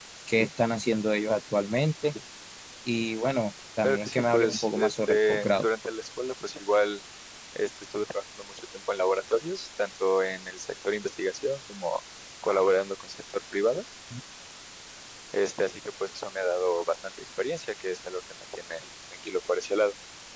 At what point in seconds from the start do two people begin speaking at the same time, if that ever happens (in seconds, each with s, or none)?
3.8 s